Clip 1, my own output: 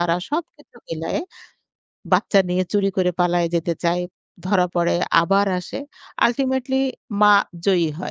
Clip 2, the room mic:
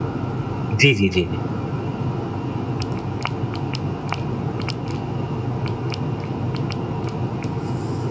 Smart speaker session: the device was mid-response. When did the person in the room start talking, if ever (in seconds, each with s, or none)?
0.8 s